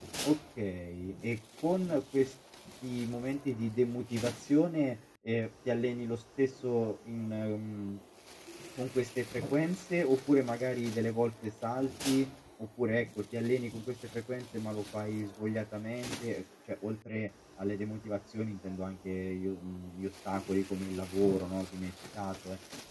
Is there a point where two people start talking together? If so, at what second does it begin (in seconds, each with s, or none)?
none